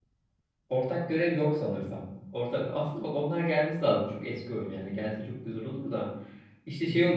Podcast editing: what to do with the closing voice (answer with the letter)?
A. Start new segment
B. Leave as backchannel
B